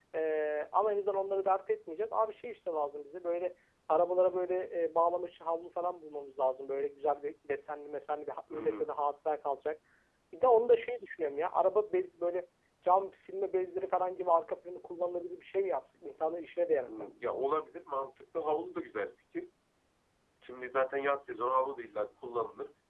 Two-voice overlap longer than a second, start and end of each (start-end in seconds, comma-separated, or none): none